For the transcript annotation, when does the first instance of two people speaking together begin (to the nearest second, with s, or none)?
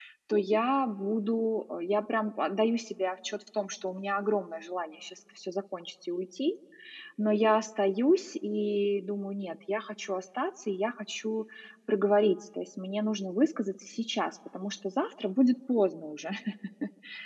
none